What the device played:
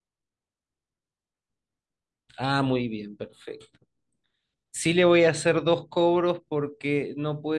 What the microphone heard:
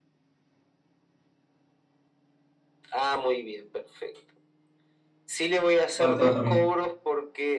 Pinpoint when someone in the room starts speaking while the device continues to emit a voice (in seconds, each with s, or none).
6.0 s